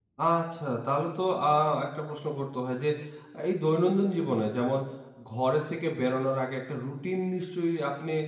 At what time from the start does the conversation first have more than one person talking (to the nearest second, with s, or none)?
none